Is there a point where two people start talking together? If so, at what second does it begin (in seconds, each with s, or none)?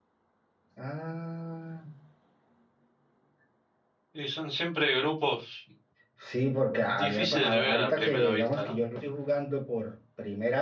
6.8 s